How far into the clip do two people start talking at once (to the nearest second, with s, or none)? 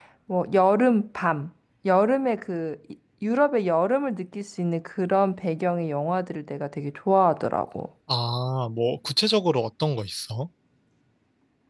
none